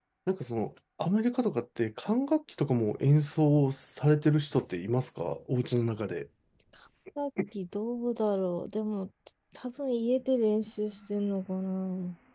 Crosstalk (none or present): none